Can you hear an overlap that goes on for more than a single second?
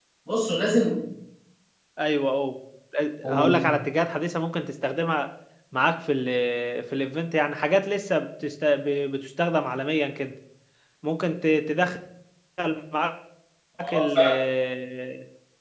No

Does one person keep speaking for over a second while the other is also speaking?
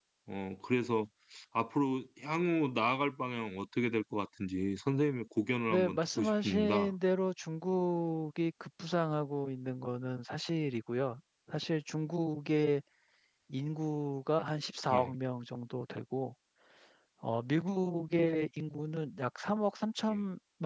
Yes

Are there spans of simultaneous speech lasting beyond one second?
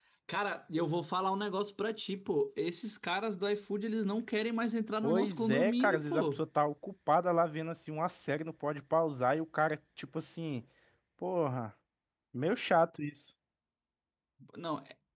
Yes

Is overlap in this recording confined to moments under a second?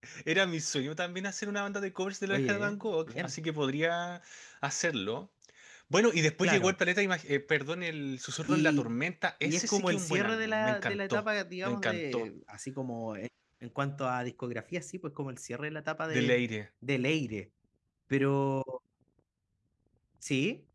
No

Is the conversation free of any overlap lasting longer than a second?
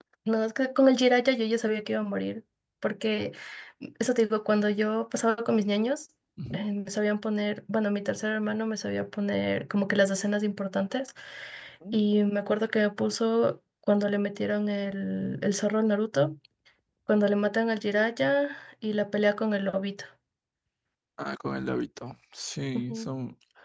Yes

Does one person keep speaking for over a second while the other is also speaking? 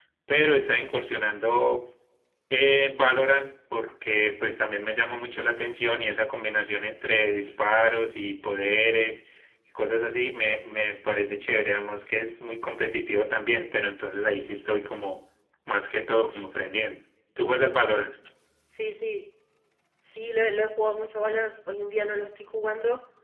No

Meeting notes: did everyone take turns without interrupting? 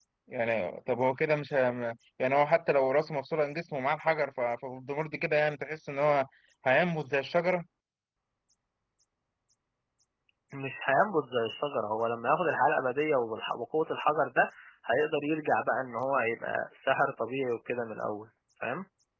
Yes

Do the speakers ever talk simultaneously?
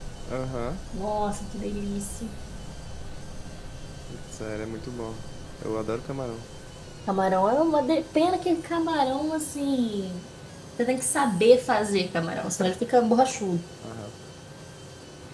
No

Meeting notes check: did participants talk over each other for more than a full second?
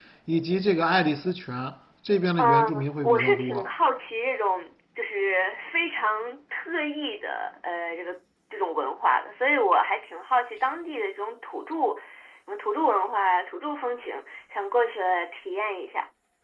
Yes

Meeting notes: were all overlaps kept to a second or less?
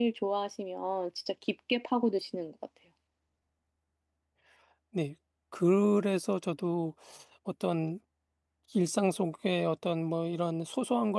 Yes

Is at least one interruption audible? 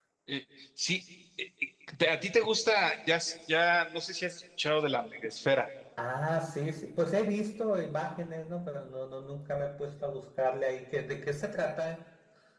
No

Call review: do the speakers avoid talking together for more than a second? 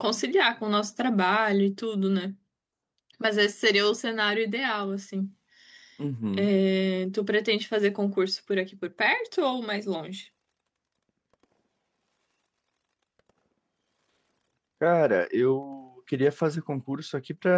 Yes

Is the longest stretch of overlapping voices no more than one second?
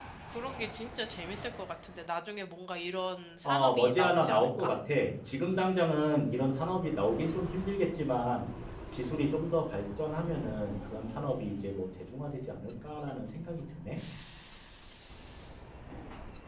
No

